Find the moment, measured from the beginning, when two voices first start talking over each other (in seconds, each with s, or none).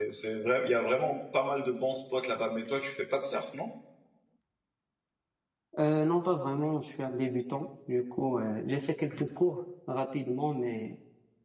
none